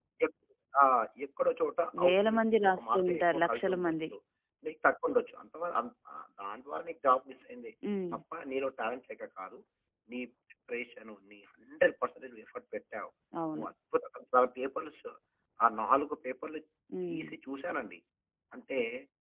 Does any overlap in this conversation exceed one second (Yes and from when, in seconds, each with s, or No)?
Yes, from 2.0 s